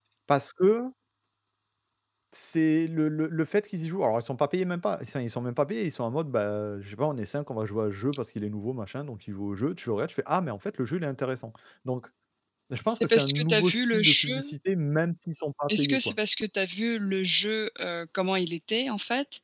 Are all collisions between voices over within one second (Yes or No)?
No